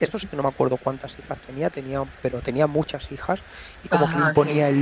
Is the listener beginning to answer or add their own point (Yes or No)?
No